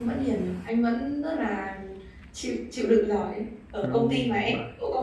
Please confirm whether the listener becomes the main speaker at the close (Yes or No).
No